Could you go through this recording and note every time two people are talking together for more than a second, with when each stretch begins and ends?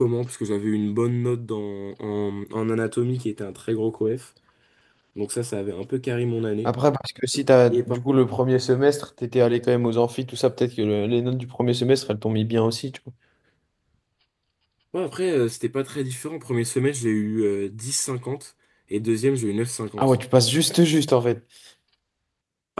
none

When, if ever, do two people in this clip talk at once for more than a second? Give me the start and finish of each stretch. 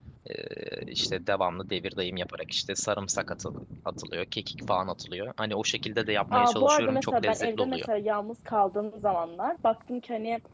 6.3-7.8

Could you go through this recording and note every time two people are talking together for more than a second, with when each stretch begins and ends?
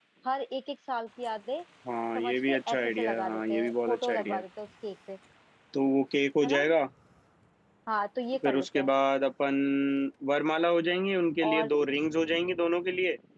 2.2-4.4

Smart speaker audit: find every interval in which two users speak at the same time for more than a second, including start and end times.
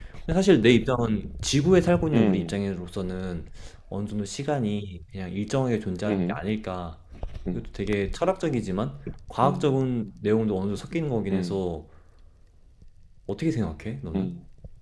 none

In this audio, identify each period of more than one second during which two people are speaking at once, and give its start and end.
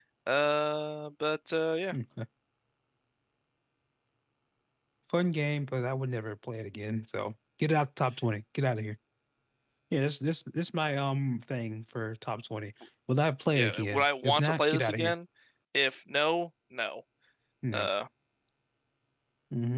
13.6-15.1

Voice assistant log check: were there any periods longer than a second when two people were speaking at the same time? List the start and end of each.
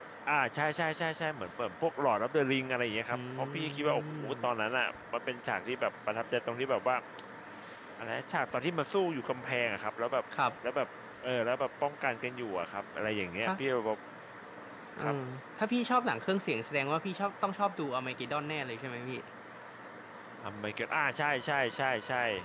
3.1-4.5

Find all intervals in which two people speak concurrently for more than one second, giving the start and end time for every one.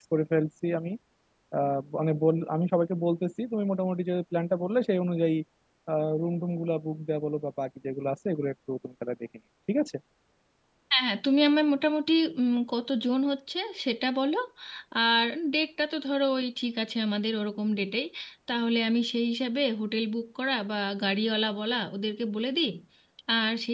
none

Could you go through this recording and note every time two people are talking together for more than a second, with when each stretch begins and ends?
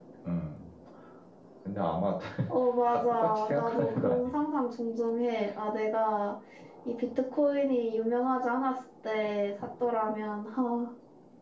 2.9-4.3

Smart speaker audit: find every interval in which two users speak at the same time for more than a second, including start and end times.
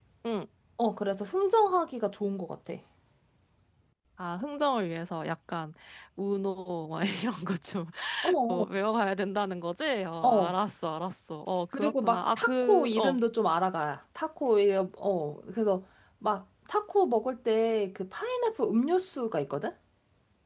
11.7-13.2

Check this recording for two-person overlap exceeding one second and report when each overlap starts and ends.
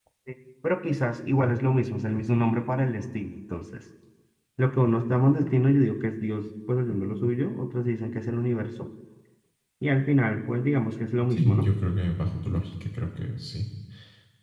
none

